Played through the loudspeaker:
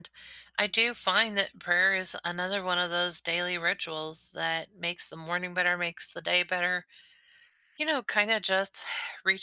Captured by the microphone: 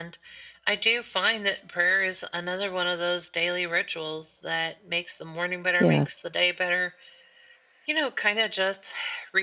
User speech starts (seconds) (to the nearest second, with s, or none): 6 s